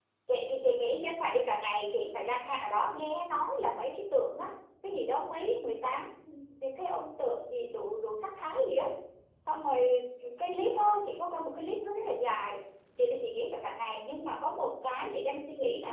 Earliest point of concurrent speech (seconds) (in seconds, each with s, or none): none